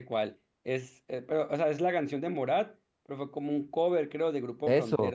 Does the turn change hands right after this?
Yes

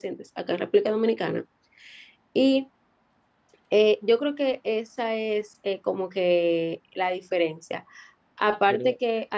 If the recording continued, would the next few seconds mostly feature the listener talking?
No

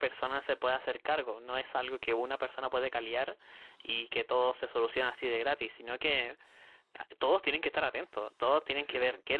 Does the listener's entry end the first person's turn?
No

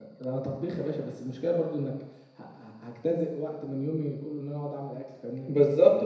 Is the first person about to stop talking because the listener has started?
Yes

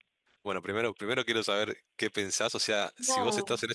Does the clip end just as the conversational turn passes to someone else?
No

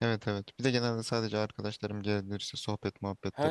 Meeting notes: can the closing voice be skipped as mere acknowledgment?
No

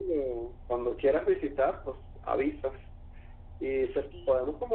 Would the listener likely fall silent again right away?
Yes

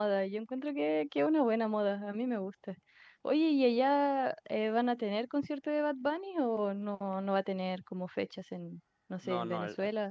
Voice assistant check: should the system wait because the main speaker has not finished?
No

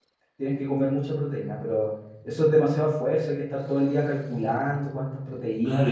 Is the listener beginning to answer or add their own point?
Yes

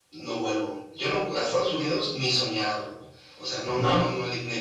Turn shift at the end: No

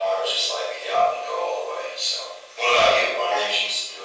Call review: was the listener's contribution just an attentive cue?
No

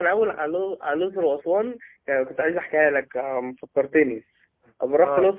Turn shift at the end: No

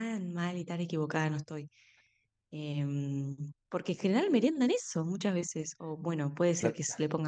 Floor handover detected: No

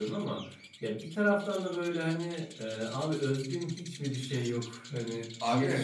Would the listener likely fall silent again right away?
No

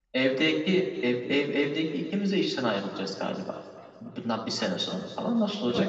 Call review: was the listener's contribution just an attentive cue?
No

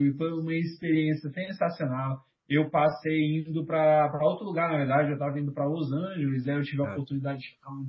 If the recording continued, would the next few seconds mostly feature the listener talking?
No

